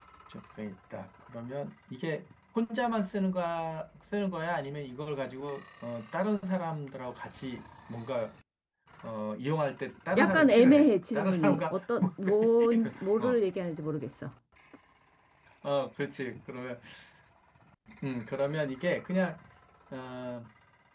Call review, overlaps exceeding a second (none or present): present